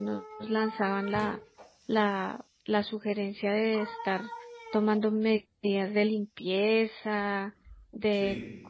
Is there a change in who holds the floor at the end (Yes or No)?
No